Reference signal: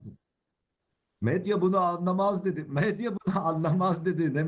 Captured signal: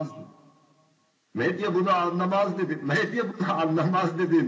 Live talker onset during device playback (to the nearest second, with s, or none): none